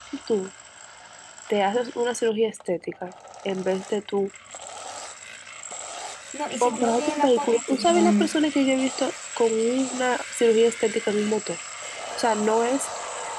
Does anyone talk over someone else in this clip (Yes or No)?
Yes